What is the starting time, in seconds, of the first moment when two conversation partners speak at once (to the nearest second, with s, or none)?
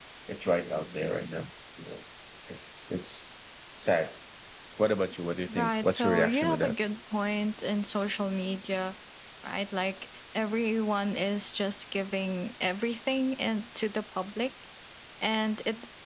5 s